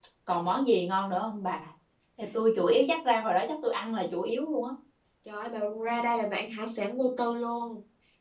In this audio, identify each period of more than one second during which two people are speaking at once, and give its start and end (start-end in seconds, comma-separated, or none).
none